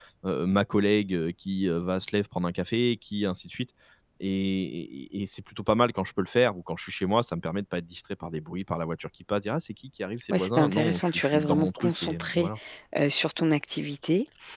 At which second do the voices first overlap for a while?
10.3 s

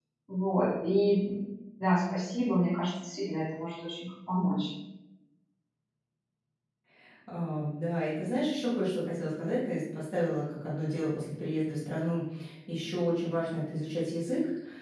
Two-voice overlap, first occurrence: none

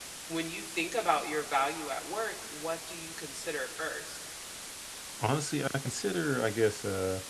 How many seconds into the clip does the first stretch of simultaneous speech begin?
none

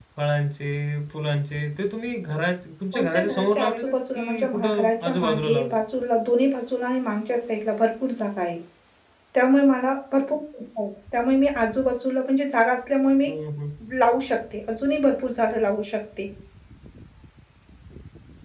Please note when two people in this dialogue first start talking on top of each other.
2.9 s

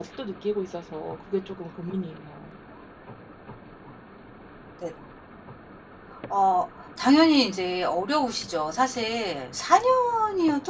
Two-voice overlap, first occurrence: none

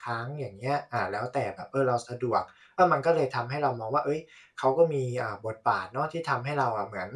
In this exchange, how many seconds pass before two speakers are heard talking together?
none

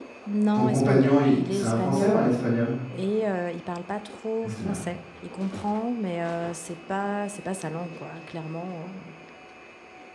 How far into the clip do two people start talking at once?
0.5 s

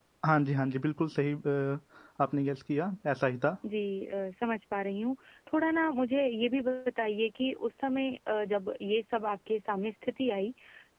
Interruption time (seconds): none

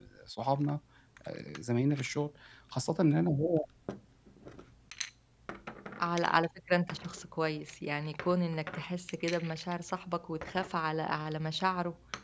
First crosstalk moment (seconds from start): none

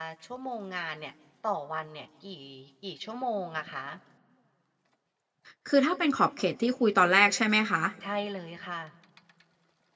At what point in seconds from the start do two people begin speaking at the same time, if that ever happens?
none

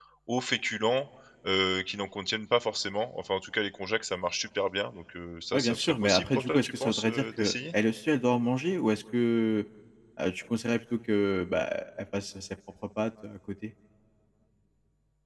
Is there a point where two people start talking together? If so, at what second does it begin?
5.5 s

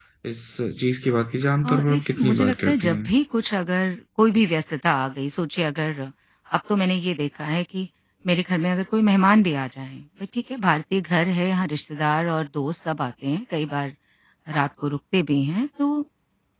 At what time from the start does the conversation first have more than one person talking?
1.6 s

